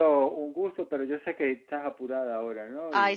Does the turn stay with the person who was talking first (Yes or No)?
No